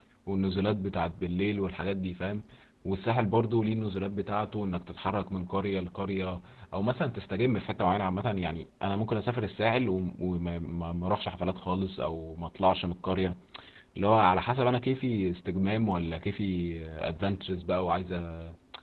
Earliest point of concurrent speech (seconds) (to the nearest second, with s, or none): none